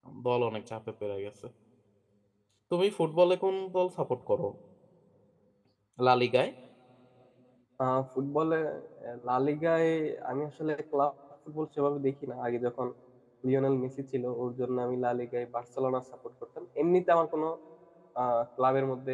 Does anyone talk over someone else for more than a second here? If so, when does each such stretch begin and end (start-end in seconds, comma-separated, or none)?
none